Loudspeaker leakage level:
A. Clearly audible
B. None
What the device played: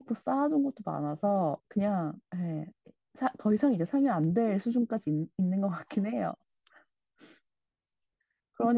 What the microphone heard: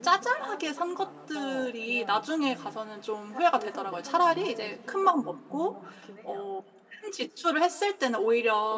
A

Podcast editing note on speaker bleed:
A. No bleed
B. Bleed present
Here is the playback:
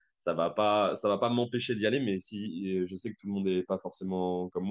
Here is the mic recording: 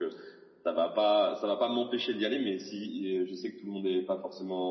B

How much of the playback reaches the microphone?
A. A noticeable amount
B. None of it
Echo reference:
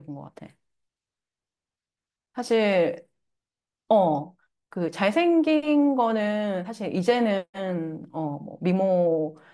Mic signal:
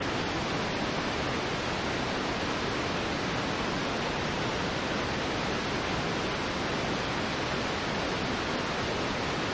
B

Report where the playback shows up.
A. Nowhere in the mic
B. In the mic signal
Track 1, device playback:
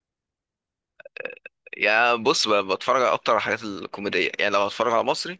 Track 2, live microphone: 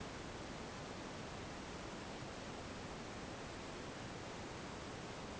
A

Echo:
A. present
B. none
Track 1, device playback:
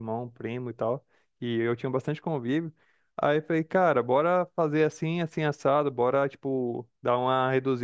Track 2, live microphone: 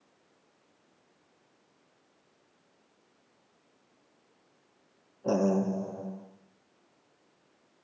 B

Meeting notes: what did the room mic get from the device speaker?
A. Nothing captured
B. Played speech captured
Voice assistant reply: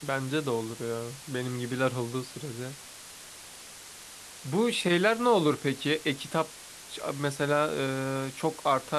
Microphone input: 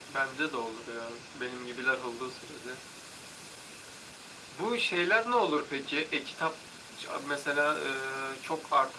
B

